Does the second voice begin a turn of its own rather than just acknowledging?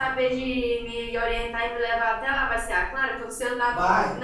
No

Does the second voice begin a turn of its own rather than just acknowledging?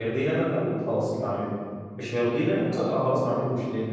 No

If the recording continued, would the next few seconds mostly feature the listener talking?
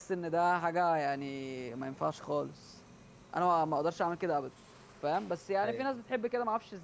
No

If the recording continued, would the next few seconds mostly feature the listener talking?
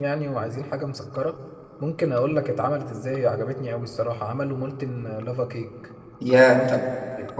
Yes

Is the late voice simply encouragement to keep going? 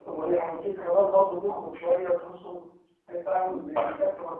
Yes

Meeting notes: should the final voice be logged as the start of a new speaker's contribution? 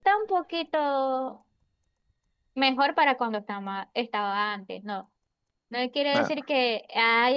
No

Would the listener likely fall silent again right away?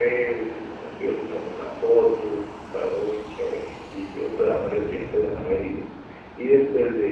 Yes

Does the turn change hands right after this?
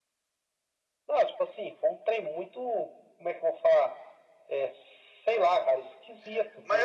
Yes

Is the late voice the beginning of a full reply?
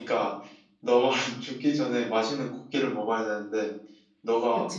No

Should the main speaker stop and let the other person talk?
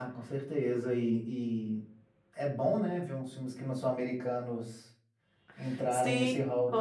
Yes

